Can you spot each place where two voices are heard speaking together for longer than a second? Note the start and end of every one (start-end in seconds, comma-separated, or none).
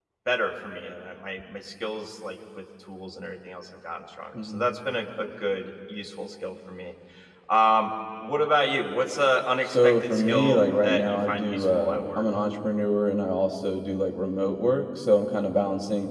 9.7-12.2